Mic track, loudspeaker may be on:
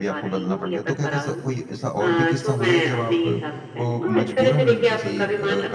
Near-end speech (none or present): present